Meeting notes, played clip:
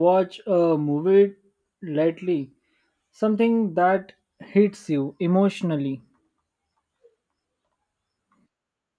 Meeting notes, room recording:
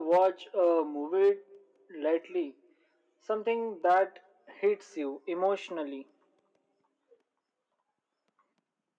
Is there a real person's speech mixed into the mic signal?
No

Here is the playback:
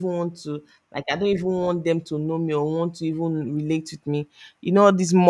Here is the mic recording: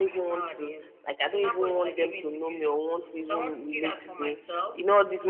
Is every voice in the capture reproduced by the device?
No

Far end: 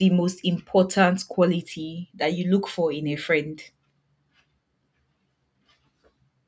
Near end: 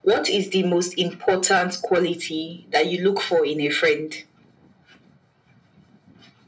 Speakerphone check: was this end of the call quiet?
Yes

